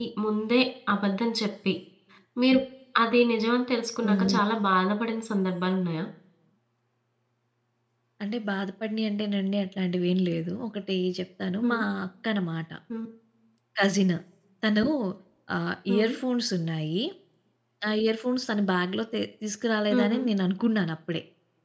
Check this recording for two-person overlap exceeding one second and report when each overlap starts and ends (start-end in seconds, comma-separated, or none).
none